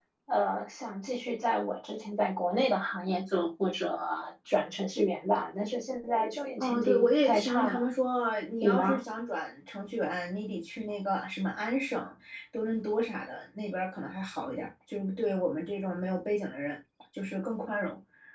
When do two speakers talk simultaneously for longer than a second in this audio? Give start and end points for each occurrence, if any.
6.6-7.8

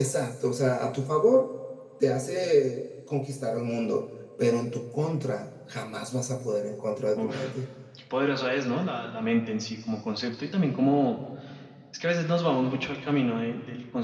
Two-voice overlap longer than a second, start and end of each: none

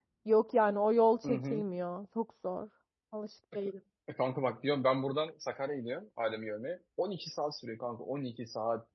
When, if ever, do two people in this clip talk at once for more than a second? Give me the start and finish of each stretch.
none

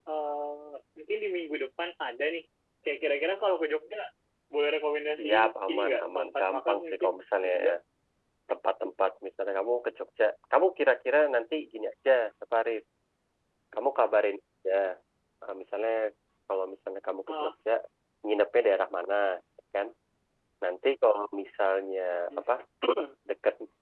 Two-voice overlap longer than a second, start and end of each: 5.1-7.5

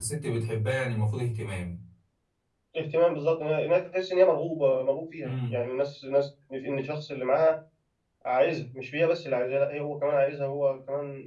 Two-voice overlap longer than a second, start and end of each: none

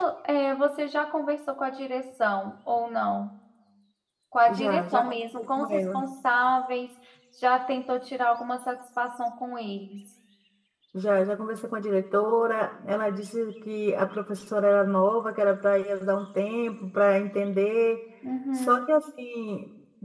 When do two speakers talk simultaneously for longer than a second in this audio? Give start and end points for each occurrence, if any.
4.5-6.0

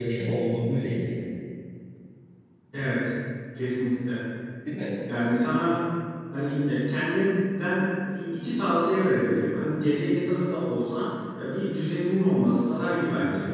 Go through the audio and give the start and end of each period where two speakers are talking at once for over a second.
none

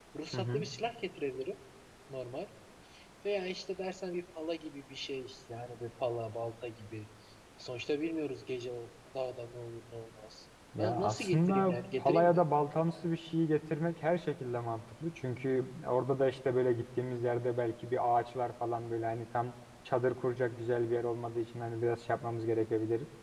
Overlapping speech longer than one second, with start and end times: 10.8-12.4

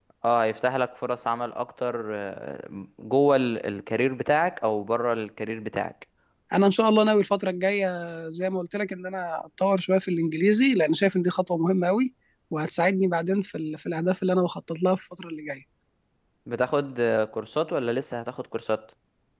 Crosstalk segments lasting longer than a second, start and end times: none

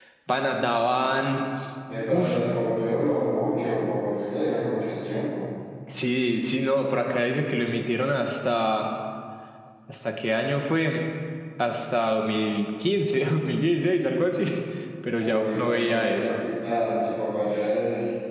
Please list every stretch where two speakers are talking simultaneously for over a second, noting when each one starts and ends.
15.1-16.4

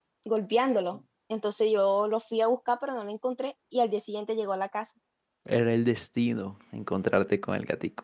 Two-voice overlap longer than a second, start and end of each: none

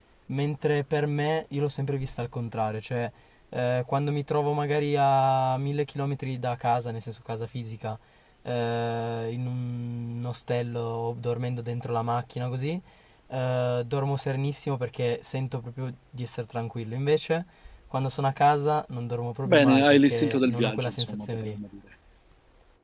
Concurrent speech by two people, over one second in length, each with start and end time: 19.4-21.6

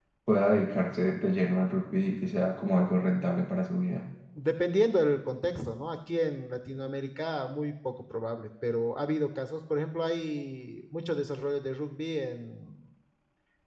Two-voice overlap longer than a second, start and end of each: none

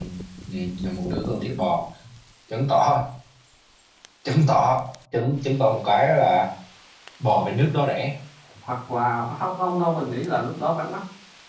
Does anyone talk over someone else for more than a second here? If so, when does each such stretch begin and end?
none

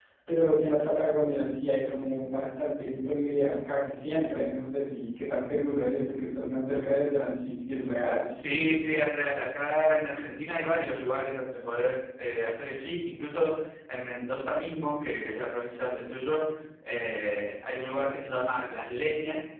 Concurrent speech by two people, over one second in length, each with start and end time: none

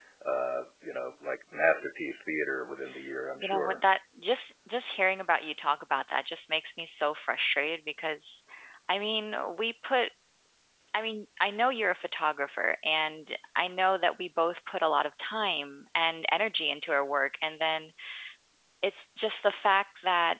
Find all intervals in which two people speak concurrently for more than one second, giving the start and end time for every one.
none

